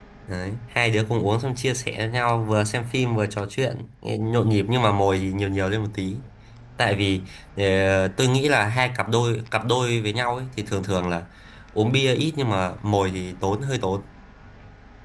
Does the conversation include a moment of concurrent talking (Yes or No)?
No